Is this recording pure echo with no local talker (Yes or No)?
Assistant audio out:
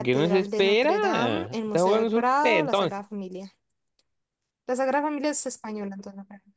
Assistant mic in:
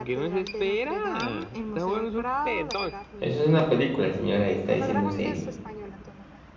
No